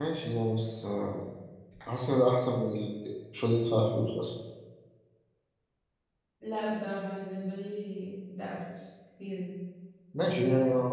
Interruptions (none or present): none